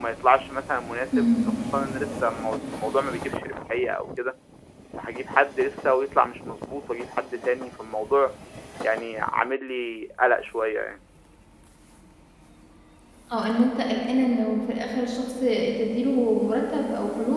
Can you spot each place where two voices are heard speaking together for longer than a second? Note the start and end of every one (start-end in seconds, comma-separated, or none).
none